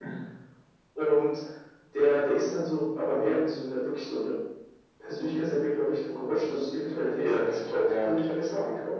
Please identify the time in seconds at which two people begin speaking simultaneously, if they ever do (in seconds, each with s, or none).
7.2 s